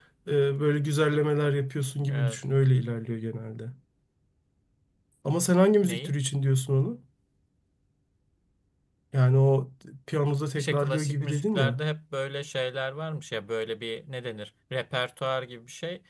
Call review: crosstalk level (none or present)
present